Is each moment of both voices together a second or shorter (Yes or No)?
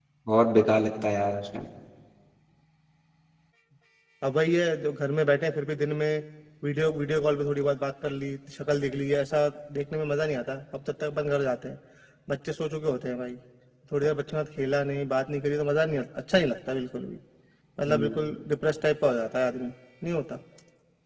Yes